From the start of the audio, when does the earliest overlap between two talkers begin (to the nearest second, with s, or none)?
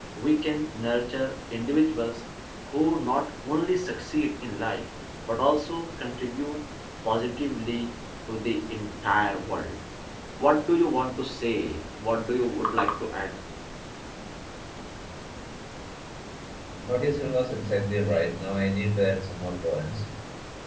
none